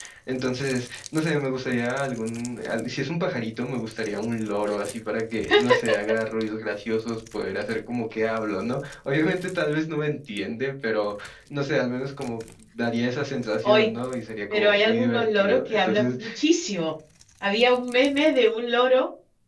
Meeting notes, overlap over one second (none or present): present